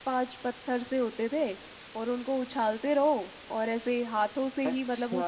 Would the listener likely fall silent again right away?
No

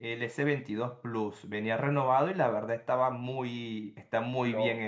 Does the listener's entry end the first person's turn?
Yes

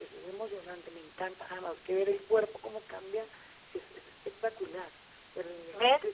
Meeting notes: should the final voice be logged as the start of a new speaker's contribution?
Yes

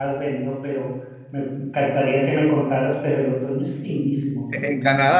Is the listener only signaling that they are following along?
No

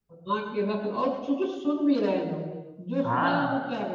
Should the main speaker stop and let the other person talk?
Yes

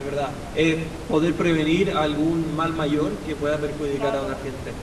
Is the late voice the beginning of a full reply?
Yes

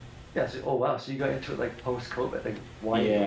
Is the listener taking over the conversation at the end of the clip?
Yes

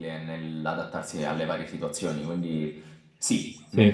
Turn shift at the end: No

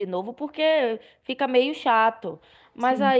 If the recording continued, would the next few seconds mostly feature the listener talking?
No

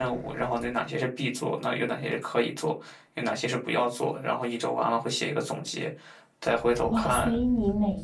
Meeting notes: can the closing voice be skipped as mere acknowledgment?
No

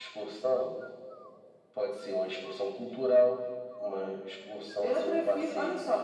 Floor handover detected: Yes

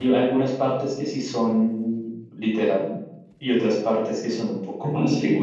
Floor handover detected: Yes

